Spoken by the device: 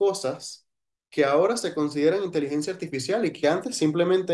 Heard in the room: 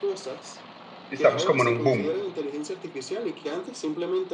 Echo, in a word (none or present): present